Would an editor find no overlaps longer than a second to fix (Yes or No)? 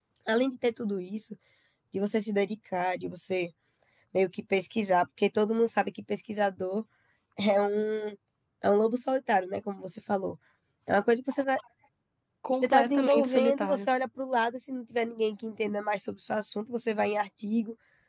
No